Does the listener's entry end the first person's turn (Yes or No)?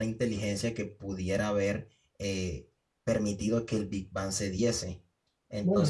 Yes